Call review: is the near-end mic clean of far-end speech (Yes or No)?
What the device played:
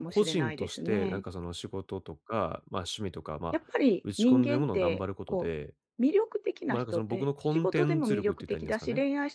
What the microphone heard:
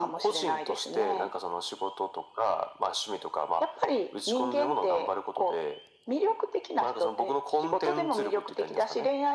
No